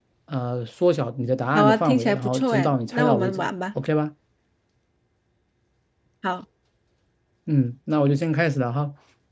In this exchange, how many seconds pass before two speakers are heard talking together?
1.5 s

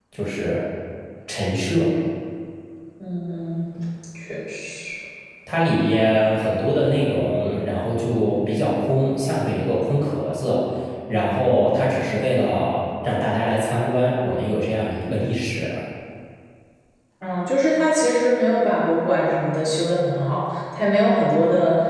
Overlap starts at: none

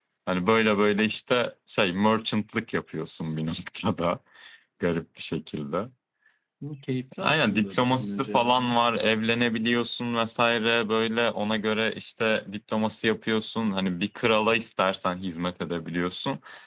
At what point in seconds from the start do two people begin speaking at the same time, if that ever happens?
7.2 s

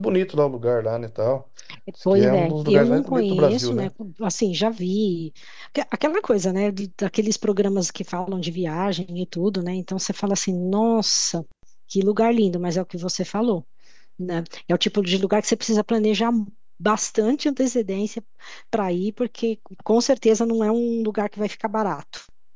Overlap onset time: 2.1 s

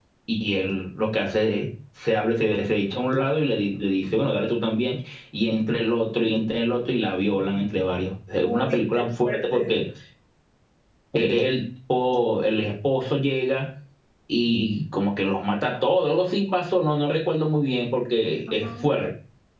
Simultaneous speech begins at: 8.4 s

